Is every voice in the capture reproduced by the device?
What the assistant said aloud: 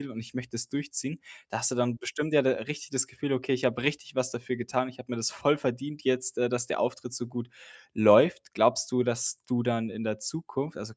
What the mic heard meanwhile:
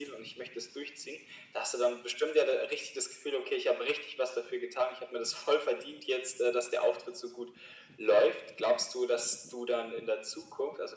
Yes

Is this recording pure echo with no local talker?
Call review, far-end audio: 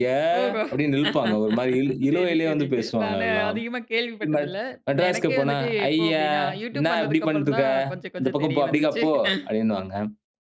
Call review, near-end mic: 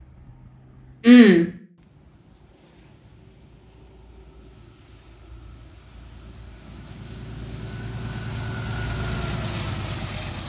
No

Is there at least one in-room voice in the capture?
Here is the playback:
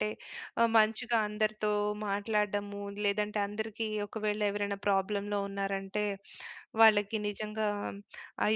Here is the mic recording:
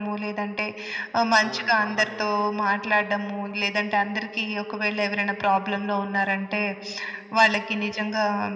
Yes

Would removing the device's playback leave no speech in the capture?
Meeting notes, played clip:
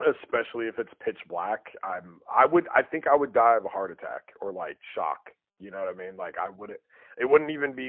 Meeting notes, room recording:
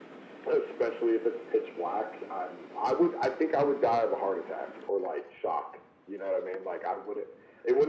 Yes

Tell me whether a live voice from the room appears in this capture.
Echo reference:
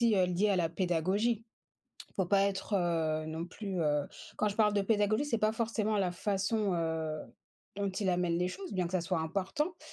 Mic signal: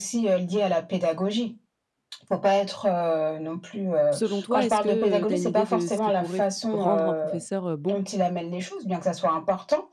Yes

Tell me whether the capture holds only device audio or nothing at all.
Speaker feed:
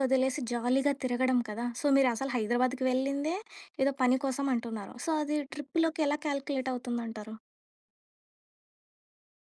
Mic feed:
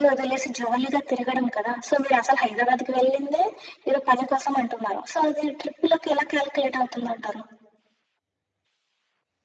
Yes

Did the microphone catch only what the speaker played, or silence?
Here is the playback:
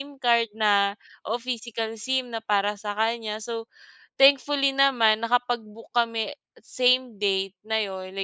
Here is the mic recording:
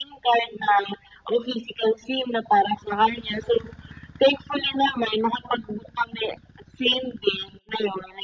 Yes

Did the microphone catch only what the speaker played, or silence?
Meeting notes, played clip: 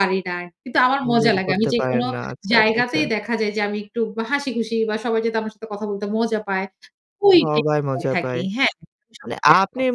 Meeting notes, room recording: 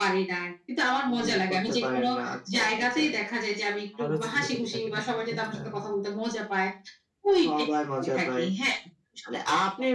No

